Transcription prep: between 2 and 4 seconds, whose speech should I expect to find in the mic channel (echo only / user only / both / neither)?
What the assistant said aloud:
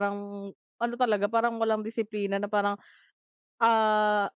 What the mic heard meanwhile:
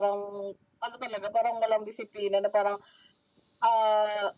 echo only